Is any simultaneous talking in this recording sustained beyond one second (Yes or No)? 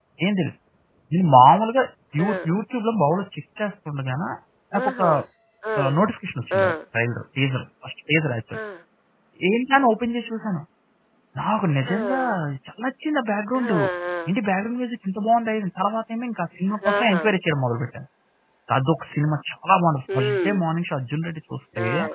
No